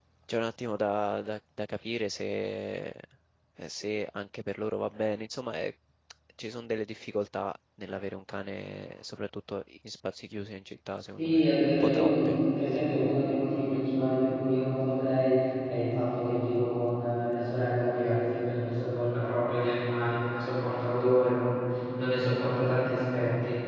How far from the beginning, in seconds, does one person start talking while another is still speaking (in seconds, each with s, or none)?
11.2 s